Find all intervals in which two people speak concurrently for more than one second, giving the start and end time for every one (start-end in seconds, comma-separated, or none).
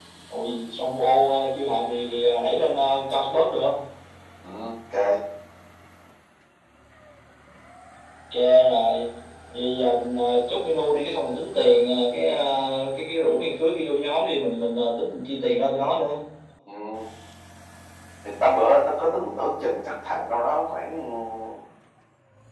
none